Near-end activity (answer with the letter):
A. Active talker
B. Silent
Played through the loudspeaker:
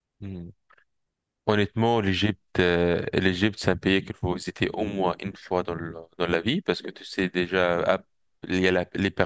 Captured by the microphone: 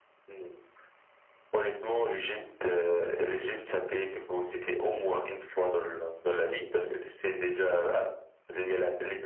B